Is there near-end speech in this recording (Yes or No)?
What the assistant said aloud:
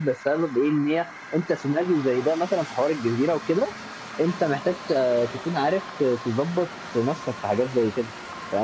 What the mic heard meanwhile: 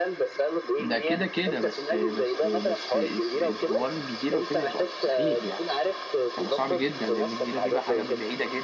Yes